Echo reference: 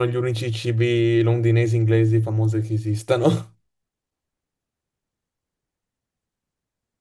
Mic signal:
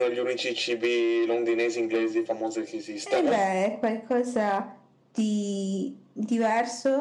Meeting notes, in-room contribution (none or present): present